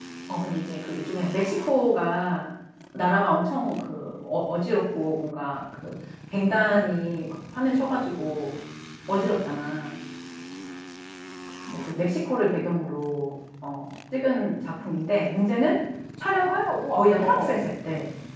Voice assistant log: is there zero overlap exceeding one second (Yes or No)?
No